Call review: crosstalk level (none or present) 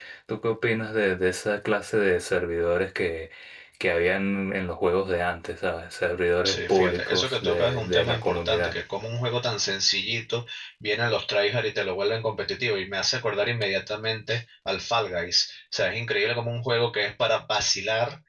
present